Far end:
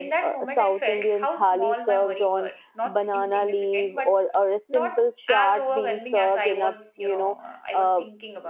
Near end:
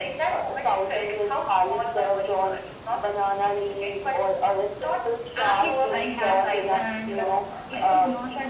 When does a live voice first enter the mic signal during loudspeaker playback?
5.6 s

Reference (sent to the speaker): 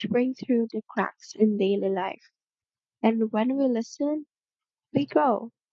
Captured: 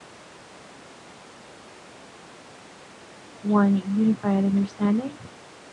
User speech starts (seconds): 3.4 s

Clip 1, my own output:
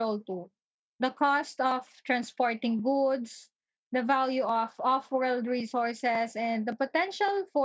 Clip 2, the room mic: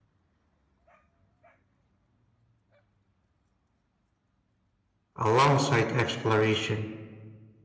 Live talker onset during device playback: 5.2 s

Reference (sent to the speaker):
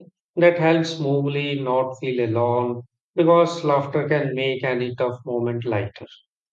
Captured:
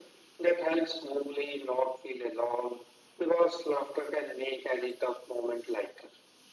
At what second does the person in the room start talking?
none

